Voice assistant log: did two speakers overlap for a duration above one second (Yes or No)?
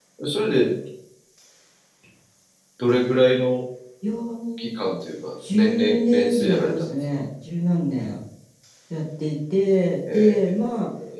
Yes